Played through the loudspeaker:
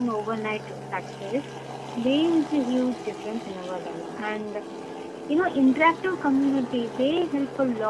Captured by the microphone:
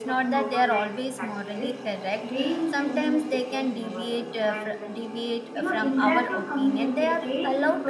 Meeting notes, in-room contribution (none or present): present